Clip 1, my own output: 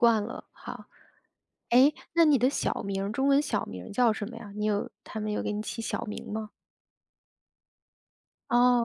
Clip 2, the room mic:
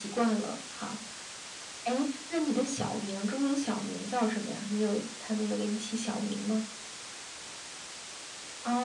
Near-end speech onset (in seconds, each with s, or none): none